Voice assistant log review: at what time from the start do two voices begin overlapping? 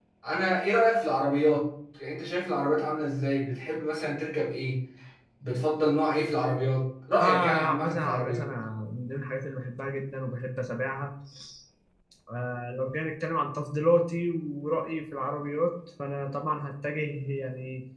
7.2 s

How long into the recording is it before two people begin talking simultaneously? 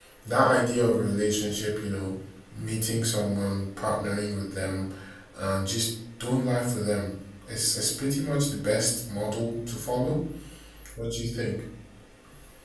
none

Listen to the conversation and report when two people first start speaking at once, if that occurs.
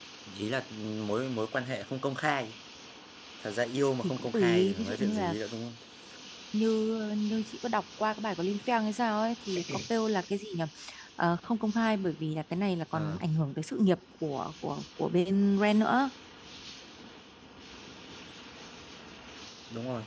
4.0 s

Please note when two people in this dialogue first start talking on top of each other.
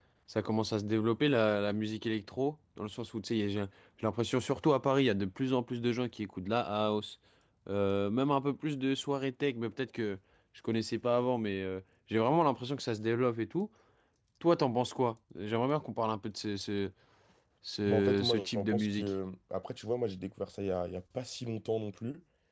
17.9 s

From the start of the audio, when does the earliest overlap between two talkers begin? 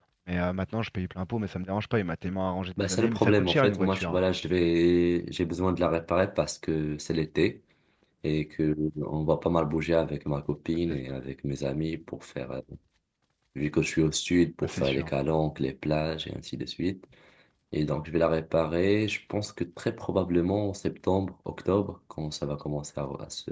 2.8 s

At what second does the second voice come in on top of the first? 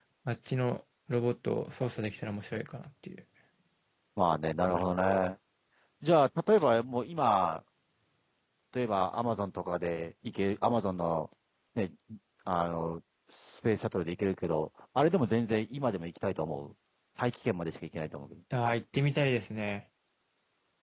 none

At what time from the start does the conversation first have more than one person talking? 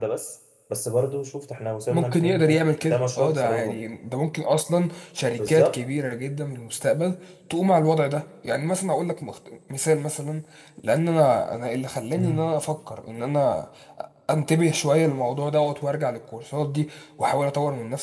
1.9 s

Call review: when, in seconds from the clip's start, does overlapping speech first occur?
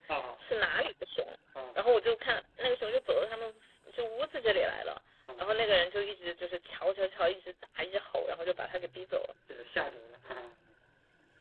none

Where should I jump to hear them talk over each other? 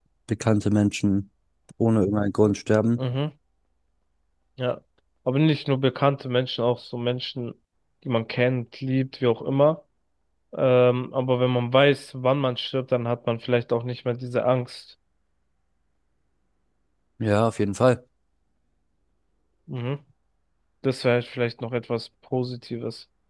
none

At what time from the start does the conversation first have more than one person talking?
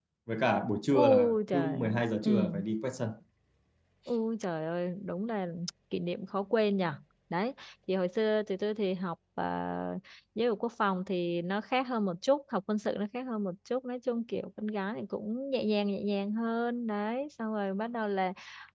0.9 s

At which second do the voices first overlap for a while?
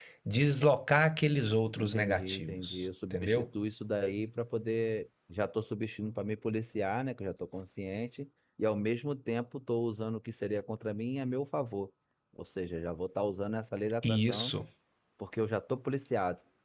1.8 s

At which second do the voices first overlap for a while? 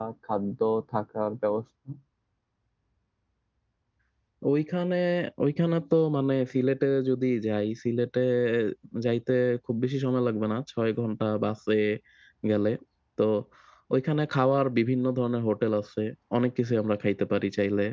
none

